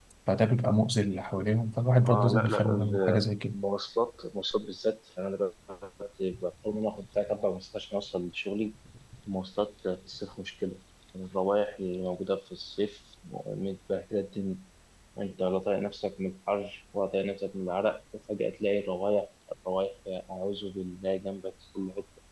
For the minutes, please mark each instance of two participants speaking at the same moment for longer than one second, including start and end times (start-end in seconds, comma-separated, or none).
2.1-3.5